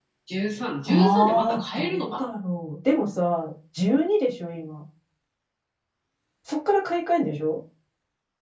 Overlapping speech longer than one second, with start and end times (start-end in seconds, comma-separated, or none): 0.9-2.3